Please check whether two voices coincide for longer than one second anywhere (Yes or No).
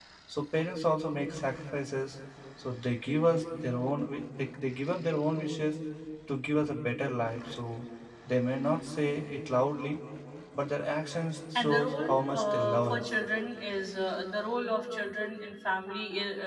Yes